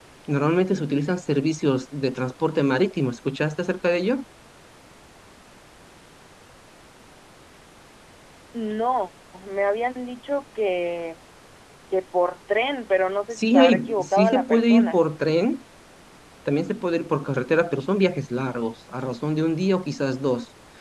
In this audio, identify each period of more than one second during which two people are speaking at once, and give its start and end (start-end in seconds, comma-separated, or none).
13.4-15.0